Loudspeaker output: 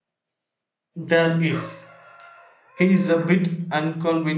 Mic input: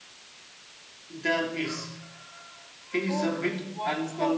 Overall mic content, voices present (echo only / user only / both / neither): both